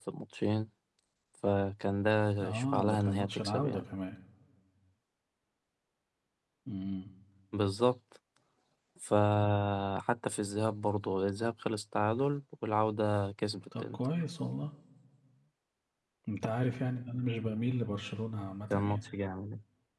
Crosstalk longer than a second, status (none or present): present